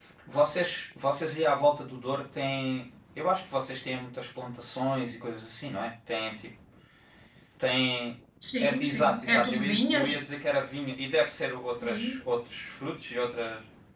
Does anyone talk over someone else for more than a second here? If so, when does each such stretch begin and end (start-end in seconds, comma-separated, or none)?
8.6-10.1